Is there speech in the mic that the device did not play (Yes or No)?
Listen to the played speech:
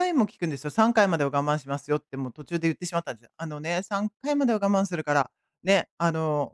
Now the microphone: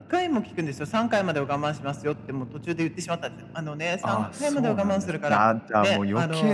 Yes